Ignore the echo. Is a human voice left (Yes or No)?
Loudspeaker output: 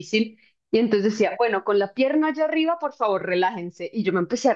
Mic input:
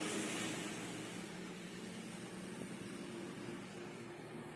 No